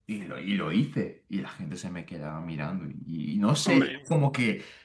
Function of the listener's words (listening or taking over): listening